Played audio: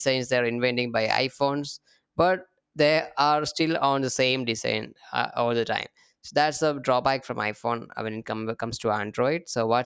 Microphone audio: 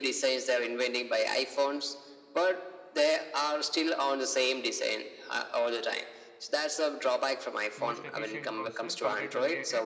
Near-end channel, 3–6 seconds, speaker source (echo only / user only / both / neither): echo only